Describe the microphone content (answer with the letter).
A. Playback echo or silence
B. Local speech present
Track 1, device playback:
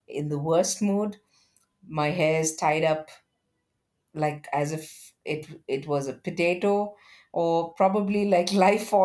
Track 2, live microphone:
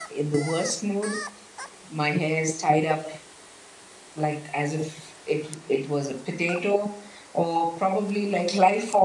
A